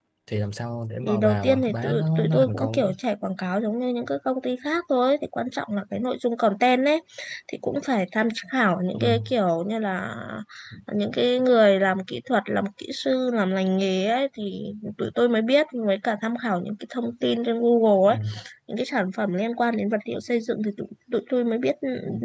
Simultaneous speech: Yes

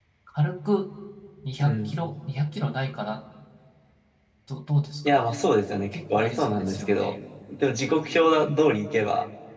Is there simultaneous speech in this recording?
Yes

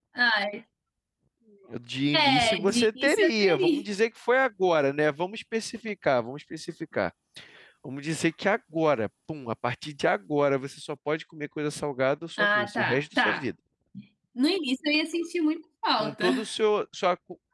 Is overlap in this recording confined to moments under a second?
No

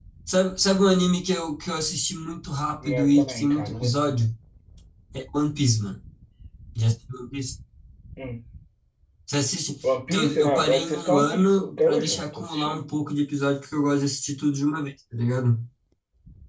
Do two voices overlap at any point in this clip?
Yes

